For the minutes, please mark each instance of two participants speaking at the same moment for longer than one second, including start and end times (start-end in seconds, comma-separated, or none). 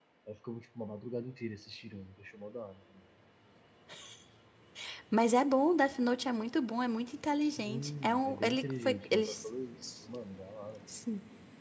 7.6-9.4